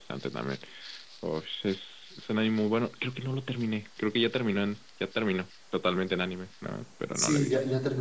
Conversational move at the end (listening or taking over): taking over